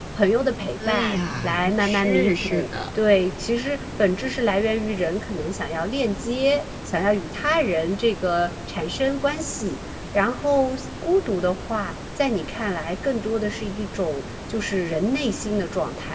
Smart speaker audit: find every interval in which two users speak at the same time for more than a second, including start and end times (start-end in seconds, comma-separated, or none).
0.8-2.6